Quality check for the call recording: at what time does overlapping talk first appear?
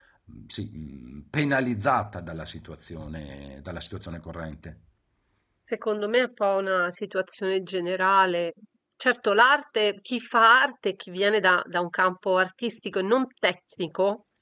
none

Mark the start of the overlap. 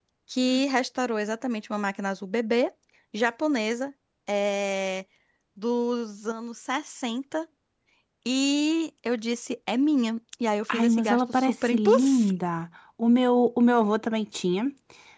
10.7 s

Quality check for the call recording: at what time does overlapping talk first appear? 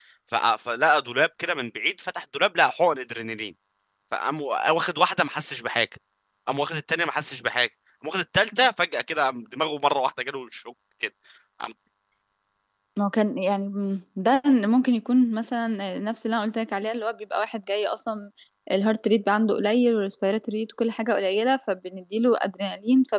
none

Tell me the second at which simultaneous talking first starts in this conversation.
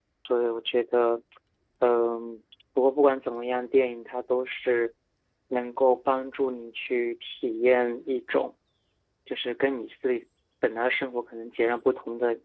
none

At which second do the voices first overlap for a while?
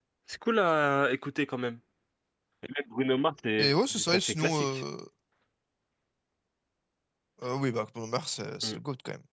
3.6 s

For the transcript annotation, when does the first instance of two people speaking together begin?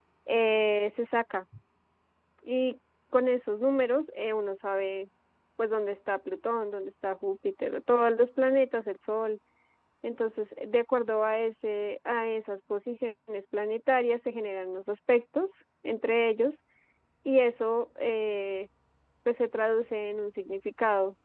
none

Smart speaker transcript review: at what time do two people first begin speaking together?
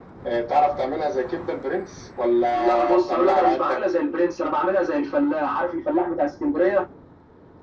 2.5 s

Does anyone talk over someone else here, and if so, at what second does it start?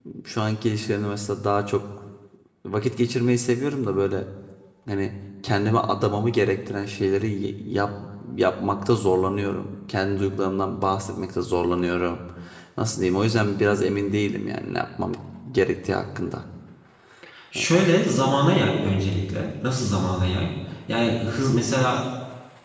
none

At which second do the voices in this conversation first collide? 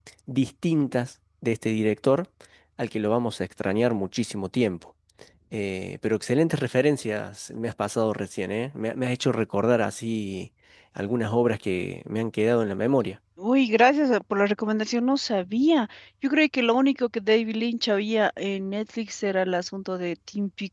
none

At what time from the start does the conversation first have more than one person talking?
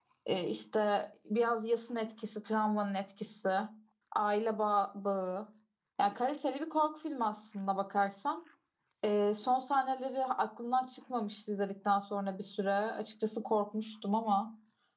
none

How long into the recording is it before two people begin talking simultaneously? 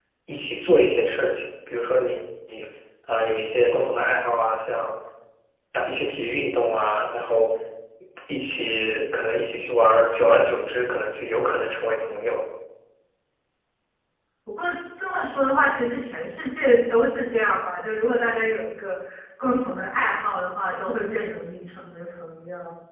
none

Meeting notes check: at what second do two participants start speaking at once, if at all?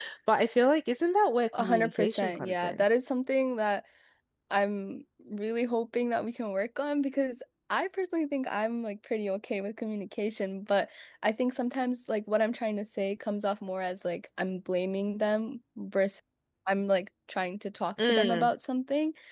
1.5 s

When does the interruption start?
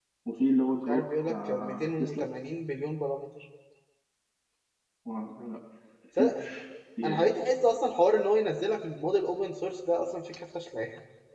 0.9 s

